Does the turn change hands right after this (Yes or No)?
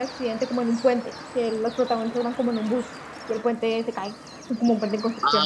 Yes